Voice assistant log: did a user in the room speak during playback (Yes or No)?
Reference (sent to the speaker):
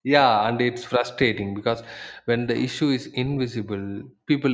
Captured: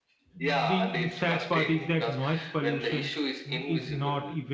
Yes